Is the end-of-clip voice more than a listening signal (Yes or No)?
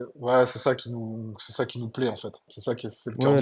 Yes